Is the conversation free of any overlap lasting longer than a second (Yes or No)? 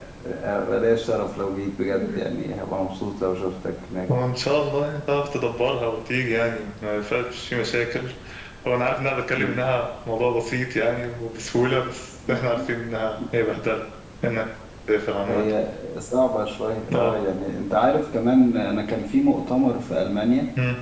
Yes